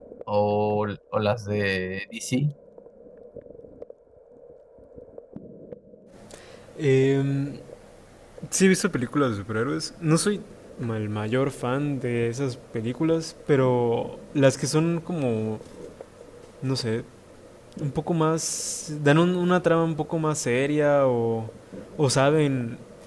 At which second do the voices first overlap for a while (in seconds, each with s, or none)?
none